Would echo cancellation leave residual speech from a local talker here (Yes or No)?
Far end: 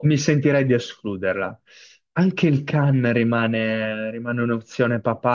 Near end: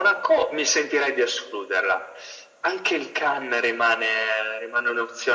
No